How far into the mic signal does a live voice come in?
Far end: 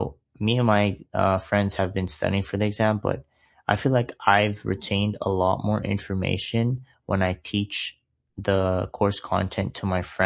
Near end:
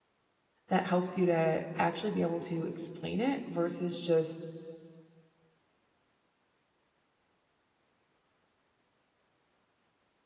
0.7 s

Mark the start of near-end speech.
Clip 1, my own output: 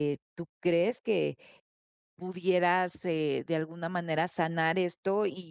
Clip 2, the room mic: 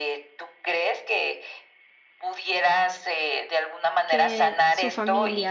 4.0 s

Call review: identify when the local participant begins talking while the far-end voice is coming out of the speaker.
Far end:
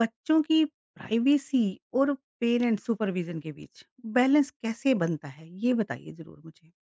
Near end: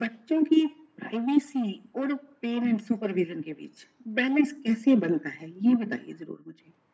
none

